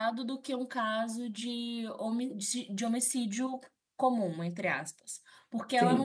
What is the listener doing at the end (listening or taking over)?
listening